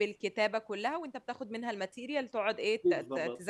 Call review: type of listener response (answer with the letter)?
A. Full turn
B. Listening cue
A